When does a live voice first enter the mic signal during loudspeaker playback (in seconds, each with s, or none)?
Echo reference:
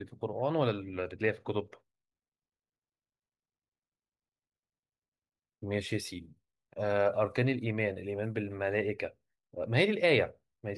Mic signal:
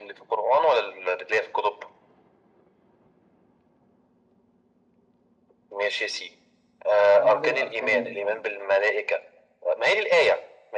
7.1 s